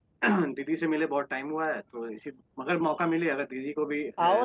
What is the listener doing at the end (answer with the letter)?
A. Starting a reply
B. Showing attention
A